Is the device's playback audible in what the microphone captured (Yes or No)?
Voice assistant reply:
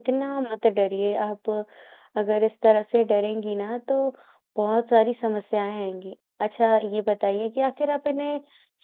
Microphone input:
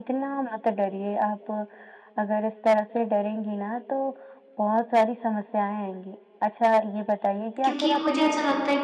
Yes